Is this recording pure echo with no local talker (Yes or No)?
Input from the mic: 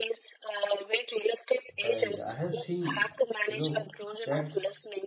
No